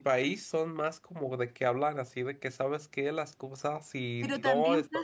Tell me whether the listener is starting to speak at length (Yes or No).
Yes